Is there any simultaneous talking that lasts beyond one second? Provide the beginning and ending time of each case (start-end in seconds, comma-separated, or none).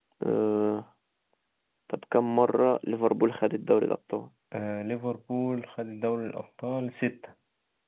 none